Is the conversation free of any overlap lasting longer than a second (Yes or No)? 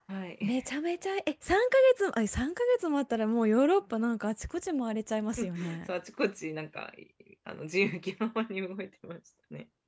Yes